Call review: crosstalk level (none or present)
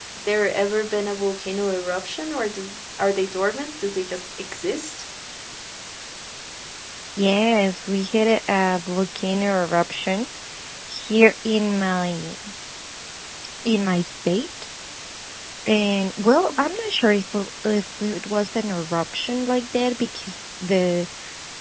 none